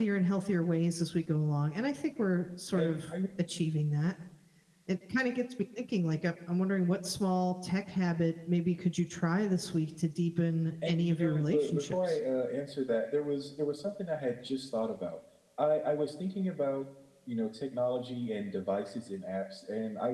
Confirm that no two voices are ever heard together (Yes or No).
No